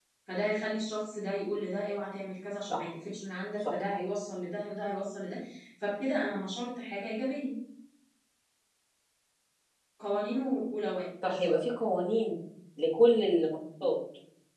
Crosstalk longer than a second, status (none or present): none